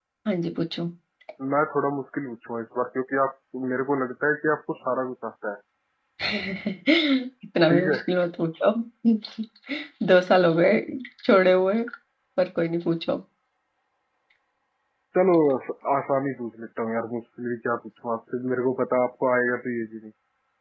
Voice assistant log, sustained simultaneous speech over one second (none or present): none